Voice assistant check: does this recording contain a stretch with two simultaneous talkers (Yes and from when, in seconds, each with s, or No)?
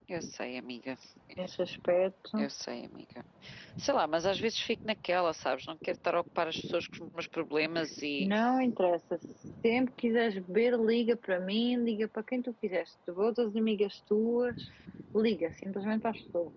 No